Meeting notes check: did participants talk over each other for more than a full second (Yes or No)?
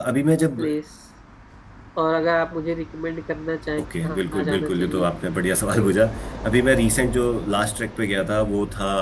Yes